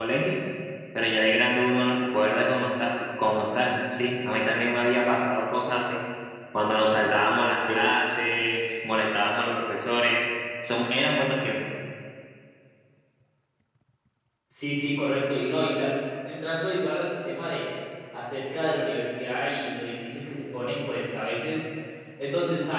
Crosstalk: none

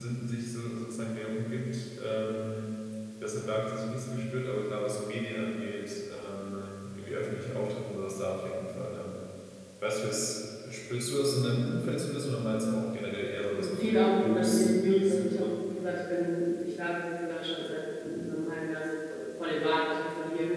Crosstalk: present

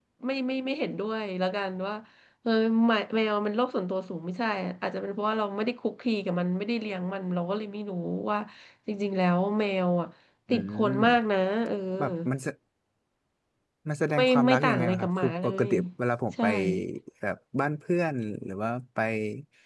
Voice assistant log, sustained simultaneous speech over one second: present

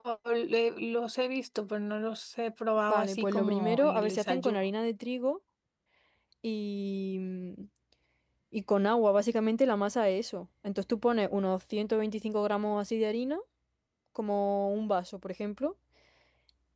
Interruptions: present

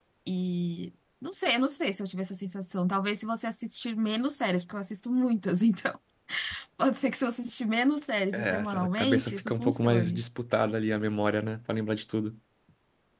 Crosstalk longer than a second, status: present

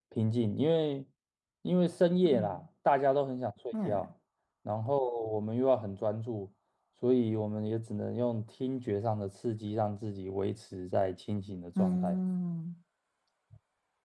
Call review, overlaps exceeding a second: none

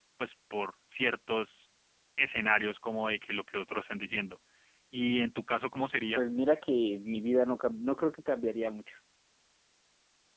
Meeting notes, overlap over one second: none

